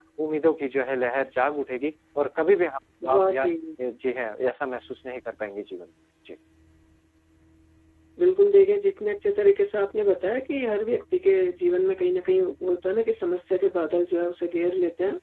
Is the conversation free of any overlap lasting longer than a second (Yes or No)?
Yes